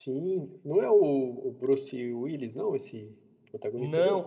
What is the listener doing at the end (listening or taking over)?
taking over